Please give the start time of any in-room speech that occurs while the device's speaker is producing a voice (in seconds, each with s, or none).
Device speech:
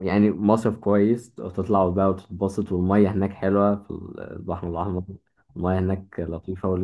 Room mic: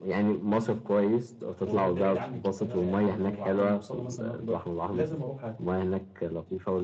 1.6 s